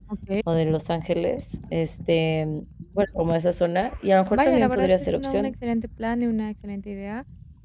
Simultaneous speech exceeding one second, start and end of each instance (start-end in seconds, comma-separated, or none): 4.3-5.5